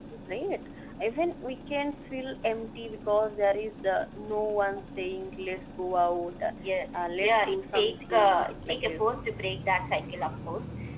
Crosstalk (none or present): present